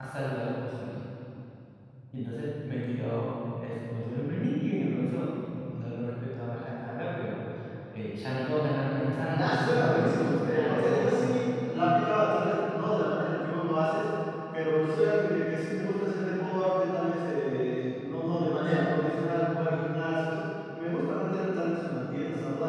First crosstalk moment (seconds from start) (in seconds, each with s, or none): 9.3 s